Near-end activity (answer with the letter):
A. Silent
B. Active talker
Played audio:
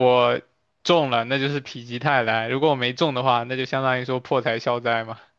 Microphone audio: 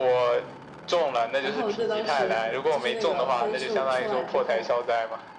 B